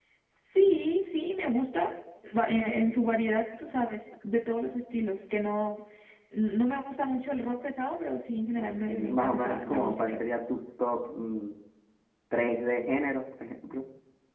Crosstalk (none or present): present